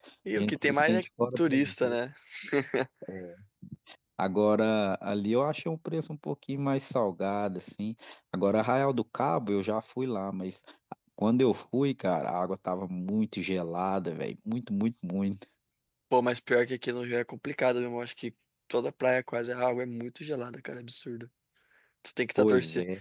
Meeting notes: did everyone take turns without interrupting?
No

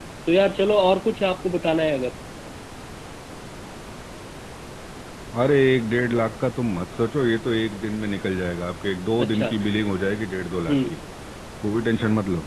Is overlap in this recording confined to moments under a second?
Yes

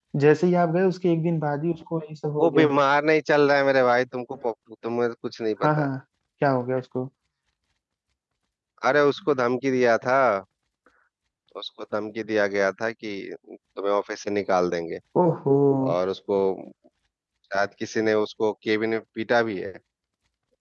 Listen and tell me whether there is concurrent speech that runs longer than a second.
No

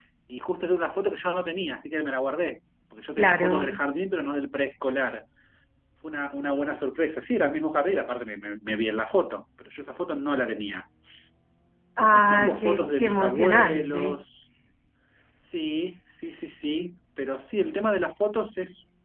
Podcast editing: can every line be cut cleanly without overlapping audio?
No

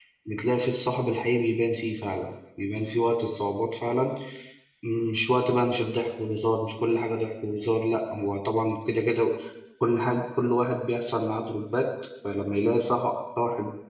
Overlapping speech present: No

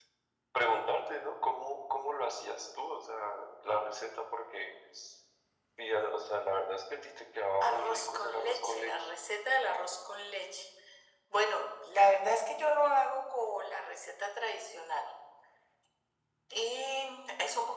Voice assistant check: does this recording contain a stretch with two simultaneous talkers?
Yes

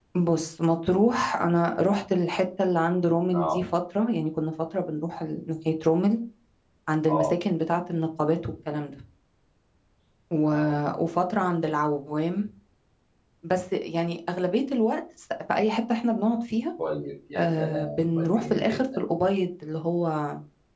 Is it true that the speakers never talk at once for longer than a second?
No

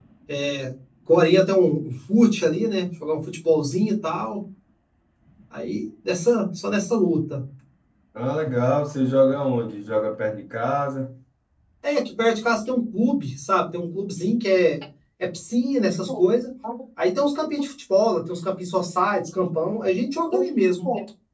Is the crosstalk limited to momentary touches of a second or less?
Yes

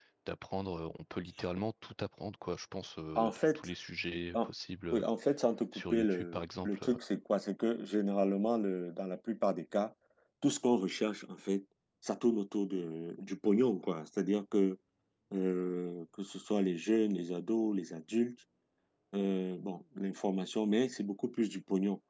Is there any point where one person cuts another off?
Yes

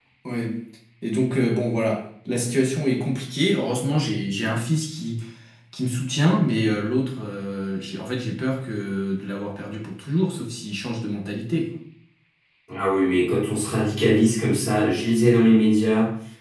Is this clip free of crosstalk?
Yes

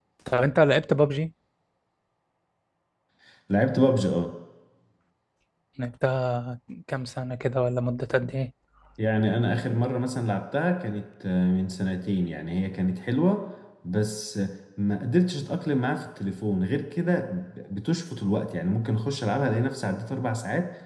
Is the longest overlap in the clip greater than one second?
No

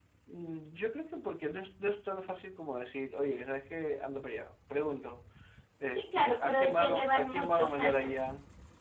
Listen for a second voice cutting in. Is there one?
Yes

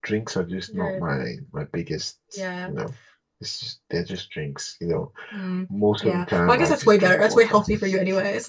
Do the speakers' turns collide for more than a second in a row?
Yes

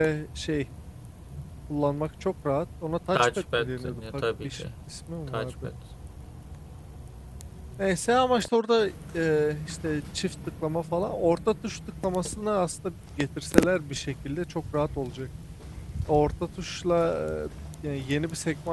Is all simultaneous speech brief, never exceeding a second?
No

